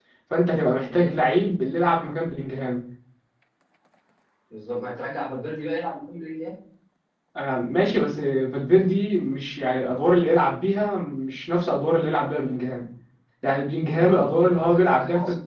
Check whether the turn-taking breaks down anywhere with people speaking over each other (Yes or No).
Yes